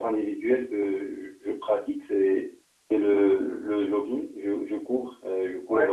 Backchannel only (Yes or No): Yes